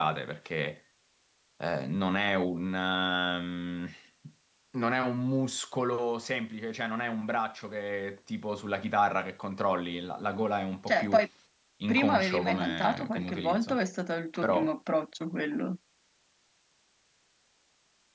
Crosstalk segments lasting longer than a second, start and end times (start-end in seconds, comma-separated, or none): 11.9-13.8